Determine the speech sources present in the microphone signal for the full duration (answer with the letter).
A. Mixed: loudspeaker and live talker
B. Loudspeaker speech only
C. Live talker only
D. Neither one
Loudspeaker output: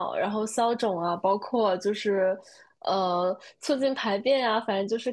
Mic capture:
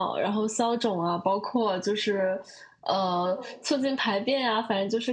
A